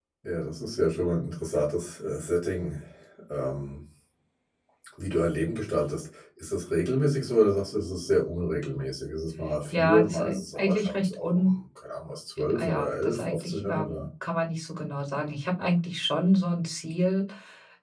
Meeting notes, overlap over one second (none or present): present